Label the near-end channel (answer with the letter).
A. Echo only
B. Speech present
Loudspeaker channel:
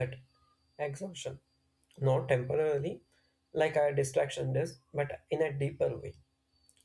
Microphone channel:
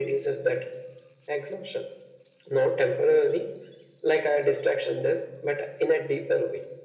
A